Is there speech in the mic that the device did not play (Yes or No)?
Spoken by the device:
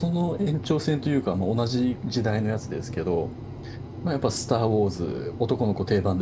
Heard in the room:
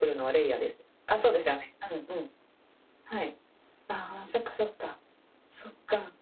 Yes